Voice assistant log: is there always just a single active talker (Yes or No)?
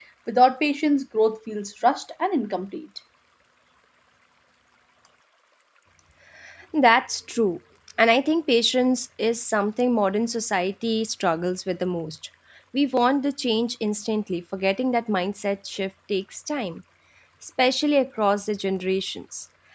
Yes